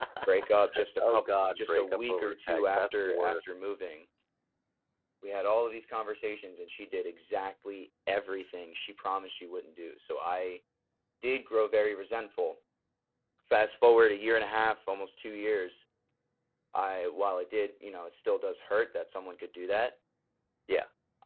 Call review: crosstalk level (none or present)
present